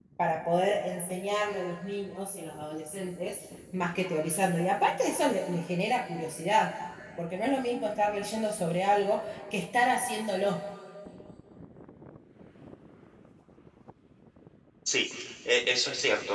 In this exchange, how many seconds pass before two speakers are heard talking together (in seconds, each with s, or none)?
none